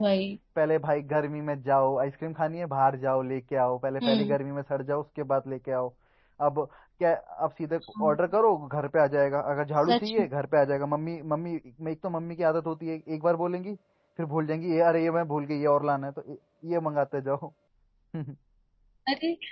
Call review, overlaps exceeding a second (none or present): none